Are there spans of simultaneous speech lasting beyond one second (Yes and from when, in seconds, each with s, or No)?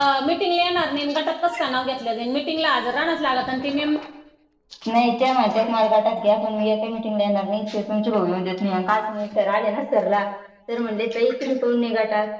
No